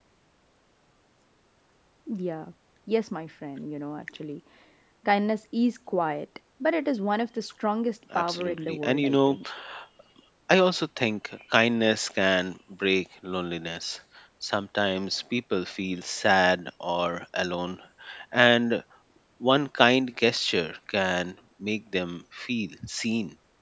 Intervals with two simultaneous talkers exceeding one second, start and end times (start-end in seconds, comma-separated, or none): 8.2-9.4